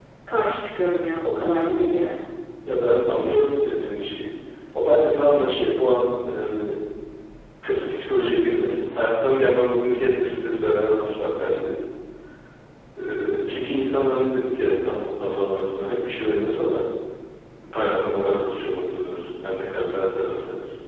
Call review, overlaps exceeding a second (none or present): none